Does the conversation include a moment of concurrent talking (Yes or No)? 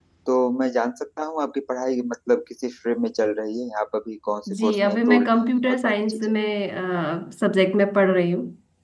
Yes